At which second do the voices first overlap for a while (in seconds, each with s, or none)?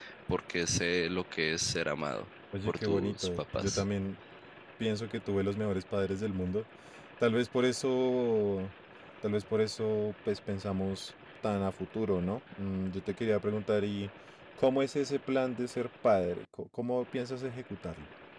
2.5 s